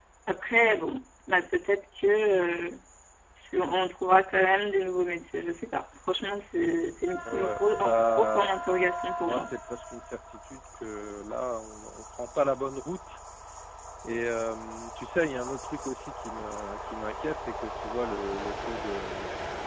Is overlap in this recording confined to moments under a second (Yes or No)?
No